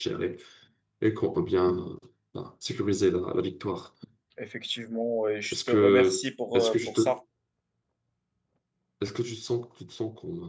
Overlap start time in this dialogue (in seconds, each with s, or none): 5.4 s